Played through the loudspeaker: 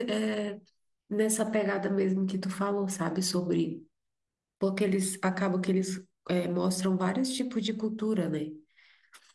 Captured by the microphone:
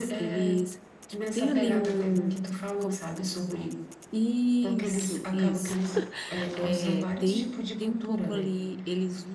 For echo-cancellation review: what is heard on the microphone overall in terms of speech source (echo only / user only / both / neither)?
both